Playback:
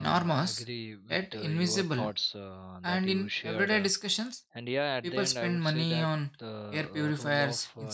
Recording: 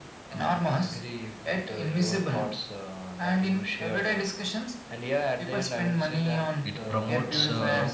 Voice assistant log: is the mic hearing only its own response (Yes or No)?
No